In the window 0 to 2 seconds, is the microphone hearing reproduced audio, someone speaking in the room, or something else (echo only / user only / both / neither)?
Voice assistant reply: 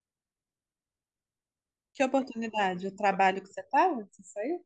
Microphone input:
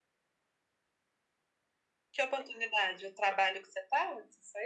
neither